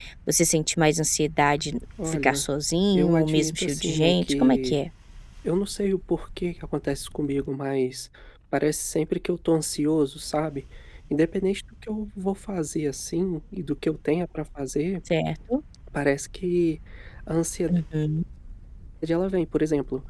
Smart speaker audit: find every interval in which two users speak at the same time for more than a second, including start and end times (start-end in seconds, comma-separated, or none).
2.9-4.8